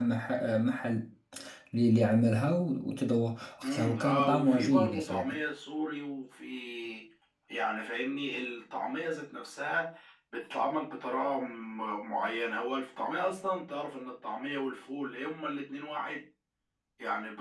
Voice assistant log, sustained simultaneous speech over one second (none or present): present